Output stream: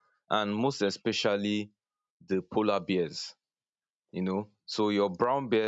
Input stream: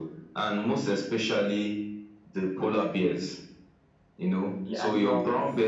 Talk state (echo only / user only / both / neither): both